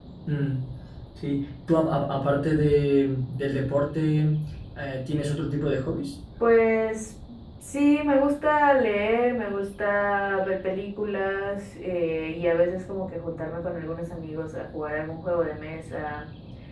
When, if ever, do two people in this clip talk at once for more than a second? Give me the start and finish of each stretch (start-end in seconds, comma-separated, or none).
none